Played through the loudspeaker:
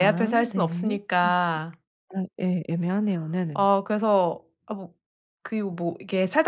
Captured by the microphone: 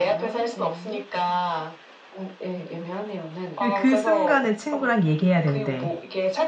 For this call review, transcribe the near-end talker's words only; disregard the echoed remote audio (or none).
예 그 순간에 친구랑 얘기해야 되는데